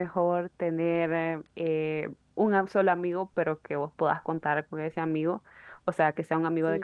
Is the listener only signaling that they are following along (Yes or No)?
Yes